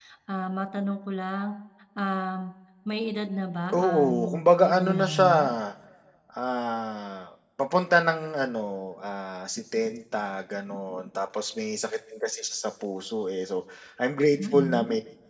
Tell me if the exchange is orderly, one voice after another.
No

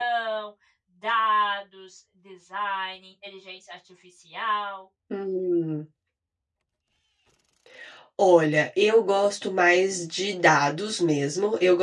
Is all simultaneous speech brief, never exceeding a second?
Yes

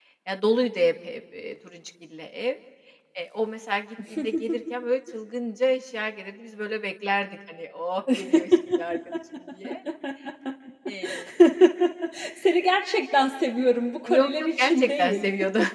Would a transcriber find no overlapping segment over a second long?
No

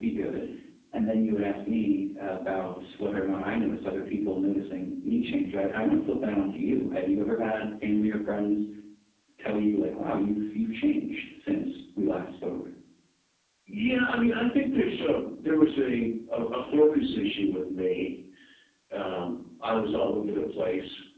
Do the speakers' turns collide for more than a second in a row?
No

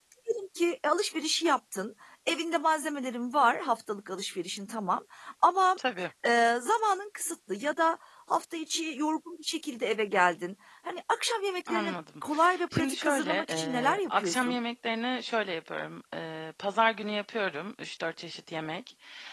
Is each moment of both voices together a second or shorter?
No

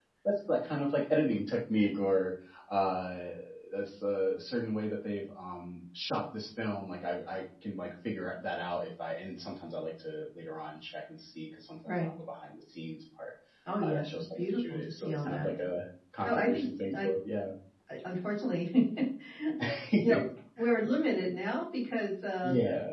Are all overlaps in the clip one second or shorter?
No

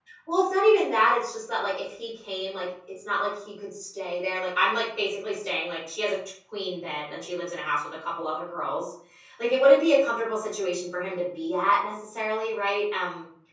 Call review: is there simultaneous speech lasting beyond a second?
No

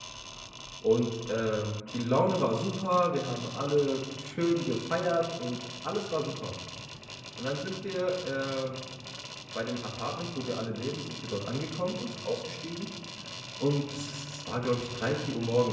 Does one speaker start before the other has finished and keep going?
No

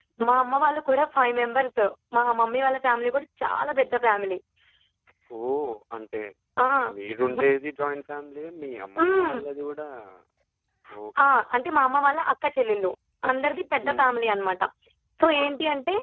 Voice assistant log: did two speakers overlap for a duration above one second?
No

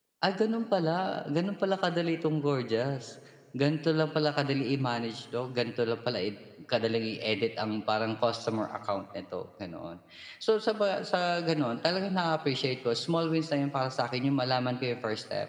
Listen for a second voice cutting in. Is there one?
No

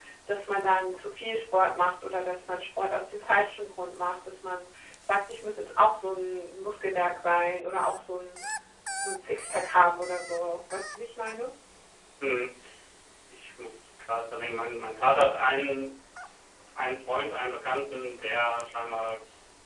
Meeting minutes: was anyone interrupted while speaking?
No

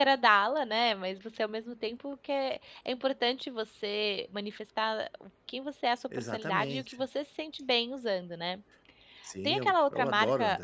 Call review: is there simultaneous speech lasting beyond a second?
Yes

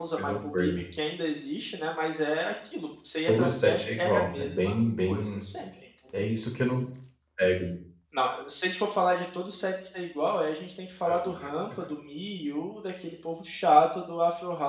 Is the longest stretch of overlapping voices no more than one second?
No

